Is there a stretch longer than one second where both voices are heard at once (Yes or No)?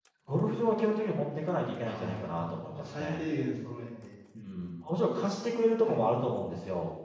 Yes